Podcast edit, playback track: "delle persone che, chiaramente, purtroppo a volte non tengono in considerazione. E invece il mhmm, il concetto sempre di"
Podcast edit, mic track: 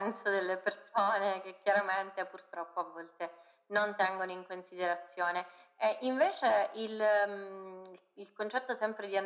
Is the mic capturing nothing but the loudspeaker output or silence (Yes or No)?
Yes